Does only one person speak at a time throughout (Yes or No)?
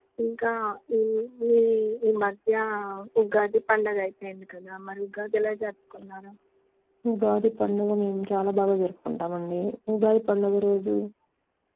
Yes